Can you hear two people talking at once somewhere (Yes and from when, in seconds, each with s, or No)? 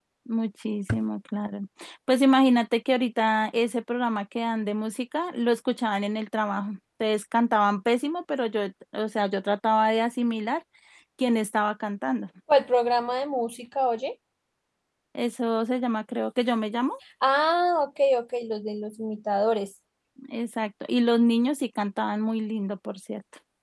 No